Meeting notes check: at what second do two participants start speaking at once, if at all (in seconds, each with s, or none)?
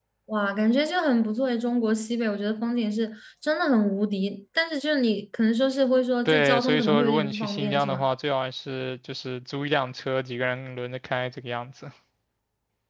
6.2 s